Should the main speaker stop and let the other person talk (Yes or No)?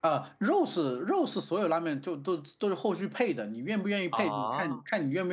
No